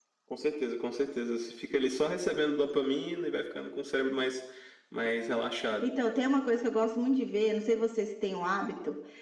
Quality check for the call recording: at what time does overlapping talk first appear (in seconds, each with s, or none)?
none